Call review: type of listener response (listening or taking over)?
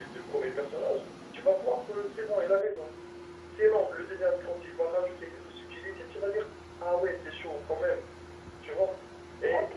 taking over